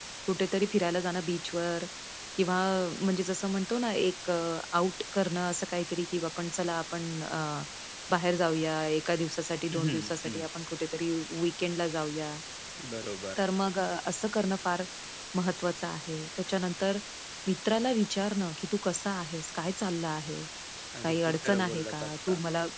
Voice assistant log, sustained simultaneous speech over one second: present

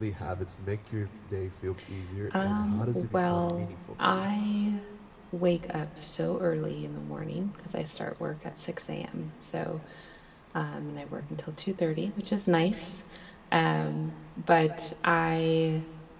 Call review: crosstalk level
present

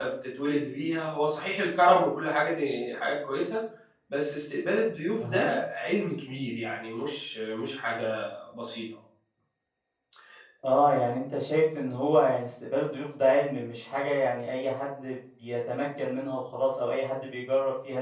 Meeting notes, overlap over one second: none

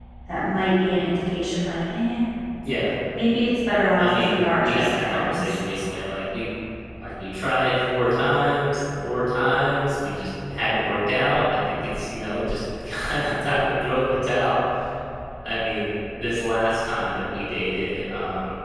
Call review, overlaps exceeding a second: present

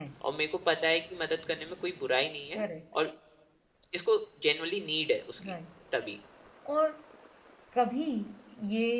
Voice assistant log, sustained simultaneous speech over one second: none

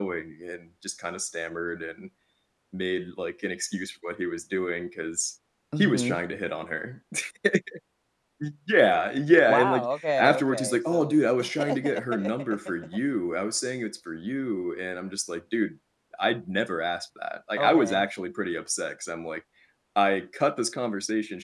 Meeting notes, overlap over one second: present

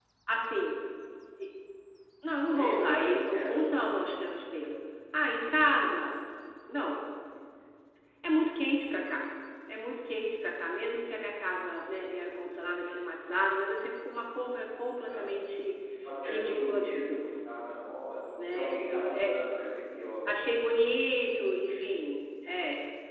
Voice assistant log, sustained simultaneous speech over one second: present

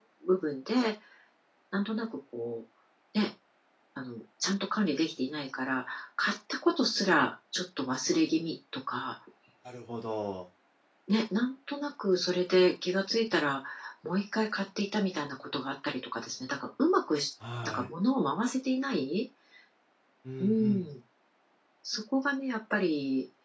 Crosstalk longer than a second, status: none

